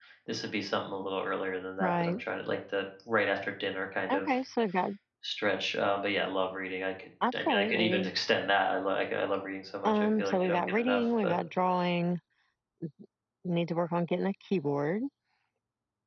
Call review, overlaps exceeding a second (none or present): present